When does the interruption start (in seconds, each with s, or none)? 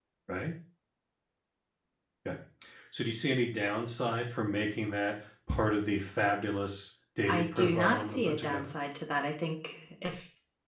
7.3 s